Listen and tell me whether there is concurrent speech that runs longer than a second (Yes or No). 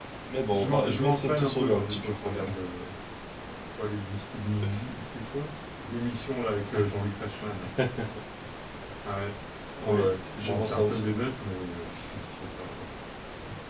Yes